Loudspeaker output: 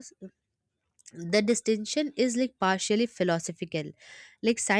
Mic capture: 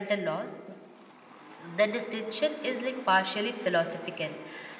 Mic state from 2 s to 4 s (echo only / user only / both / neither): echo only